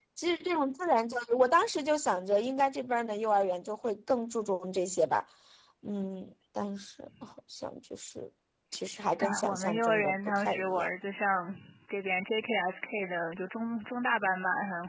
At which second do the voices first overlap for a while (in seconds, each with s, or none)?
9.2 s